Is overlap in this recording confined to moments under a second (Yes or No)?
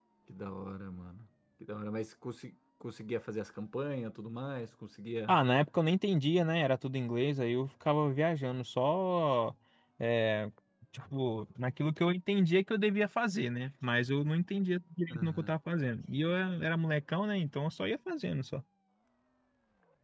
Yes